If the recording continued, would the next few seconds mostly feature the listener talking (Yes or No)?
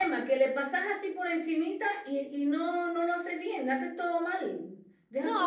Yes